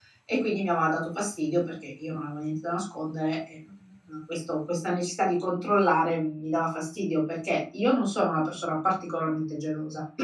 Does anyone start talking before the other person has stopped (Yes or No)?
No